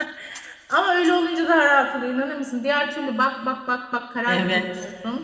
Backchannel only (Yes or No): No